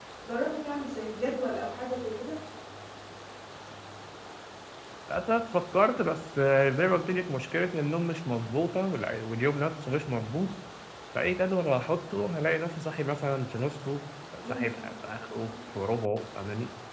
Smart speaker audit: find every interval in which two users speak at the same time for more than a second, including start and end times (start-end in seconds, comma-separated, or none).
none